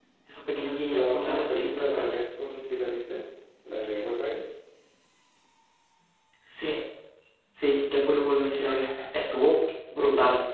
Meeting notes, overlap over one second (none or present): present